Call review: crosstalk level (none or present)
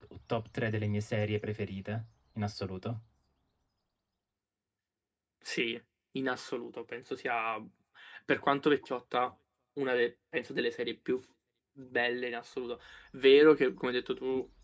none